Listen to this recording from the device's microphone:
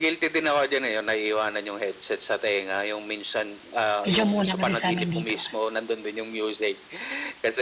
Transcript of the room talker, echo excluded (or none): medyo umuulan kasi sa amin dito,